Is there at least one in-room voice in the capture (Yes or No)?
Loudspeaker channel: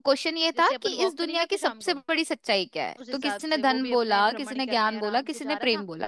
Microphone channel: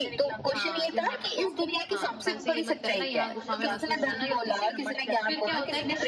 Yes